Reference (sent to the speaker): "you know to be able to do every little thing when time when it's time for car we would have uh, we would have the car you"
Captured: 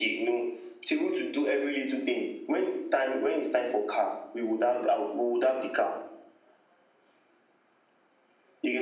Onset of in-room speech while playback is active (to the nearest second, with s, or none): none